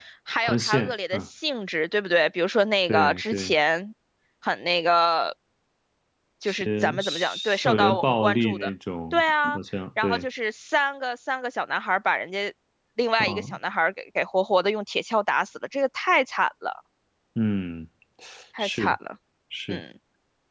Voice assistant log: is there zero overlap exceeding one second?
No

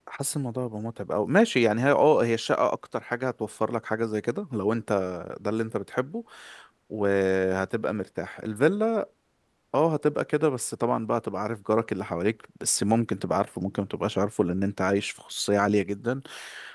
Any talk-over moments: No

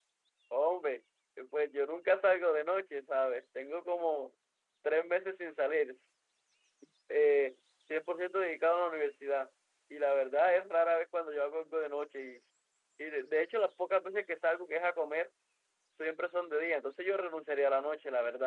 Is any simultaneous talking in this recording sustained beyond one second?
No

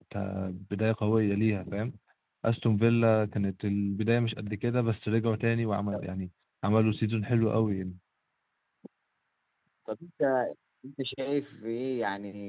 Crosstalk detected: No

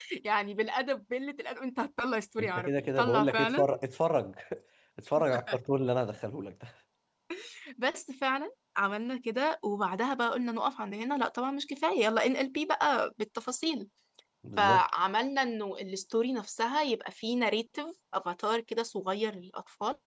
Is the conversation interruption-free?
No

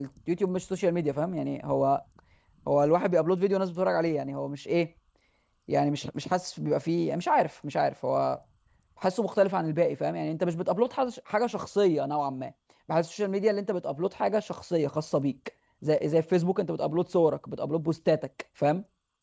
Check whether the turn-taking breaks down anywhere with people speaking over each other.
No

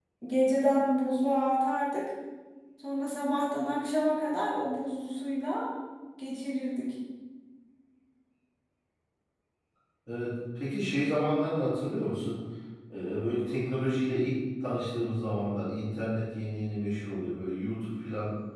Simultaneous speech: No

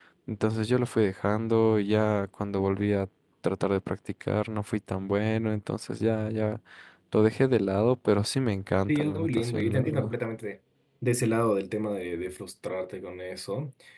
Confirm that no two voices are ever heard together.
No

